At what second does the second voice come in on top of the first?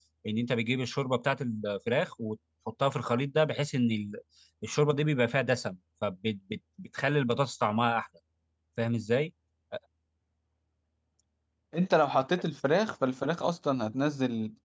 none

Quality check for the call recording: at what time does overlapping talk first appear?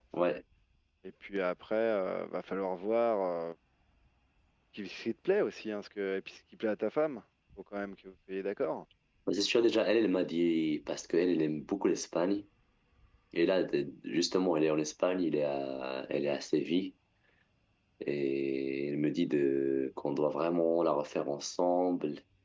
none

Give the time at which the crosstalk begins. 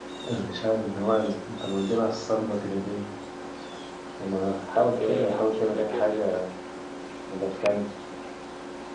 4.7 s

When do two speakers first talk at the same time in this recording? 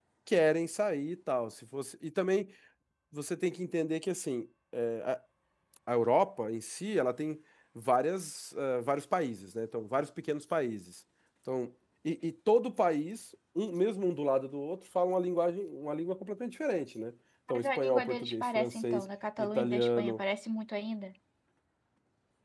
17.5 s

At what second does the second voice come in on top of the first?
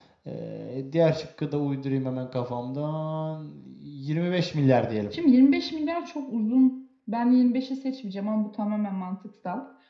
none

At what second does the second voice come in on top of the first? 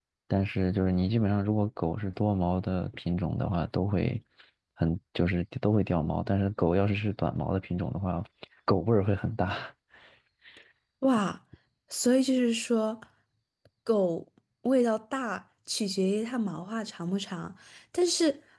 none

